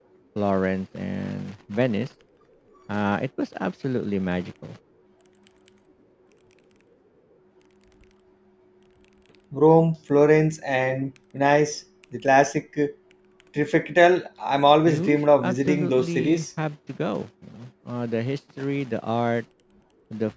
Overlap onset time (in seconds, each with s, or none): 14.9 s